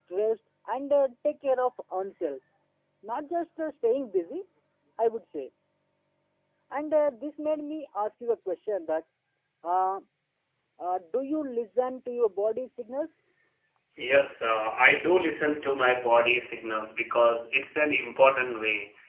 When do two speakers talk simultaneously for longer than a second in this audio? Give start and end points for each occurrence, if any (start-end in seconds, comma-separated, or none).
none